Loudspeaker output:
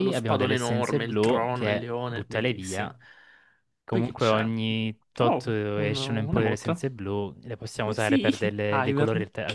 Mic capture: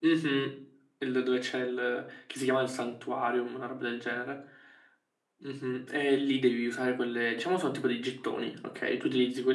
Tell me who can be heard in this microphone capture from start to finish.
user only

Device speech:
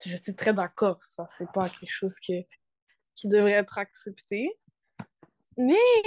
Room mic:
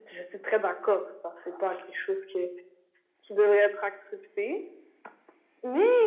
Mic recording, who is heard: echo only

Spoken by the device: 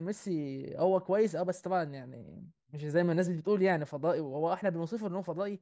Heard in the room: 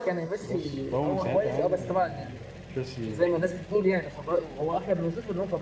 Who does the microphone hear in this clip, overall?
both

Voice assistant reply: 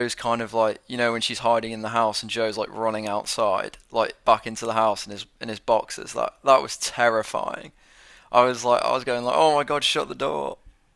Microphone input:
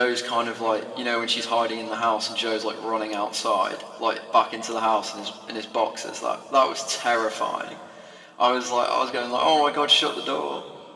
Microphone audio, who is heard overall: echo only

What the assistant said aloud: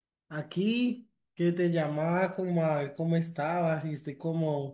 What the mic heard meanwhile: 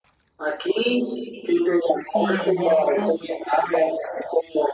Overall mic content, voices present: both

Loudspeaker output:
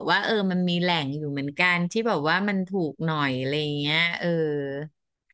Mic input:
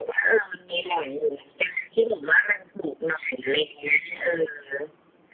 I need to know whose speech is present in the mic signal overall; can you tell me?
echo only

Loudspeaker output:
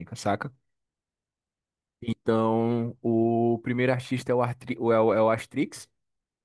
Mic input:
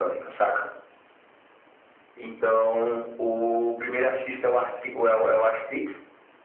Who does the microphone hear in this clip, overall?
echo only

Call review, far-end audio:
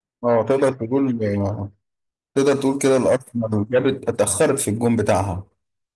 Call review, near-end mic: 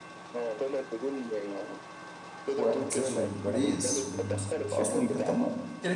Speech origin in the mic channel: both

